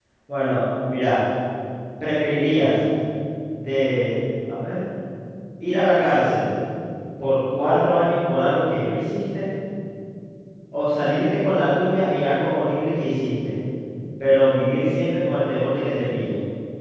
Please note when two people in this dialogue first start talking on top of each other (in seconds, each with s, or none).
none